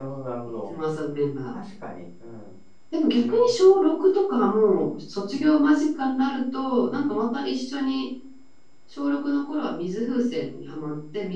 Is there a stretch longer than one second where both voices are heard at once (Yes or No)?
No